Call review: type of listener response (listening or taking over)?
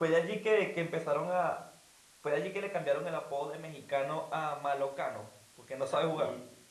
taking over